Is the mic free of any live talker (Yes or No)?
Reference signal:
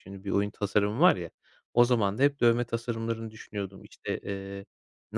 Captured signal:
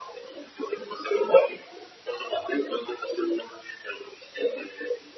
Yes